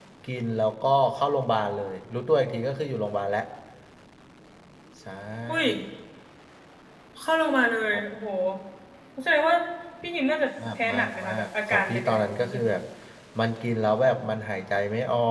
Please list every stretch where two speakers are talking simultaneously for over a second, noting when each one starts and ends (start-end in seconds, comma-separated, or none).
10.8-12.6